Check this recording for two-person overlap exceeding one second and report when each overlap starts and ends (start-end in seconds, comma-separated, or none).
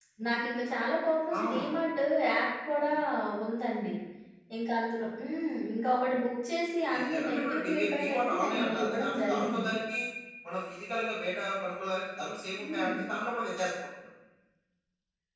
6.9-9.7